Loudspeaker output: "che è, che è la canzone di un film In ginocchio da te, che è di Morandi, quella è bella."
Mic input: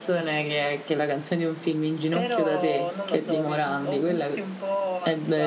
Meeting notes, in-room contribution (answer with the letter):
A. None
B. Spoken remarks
B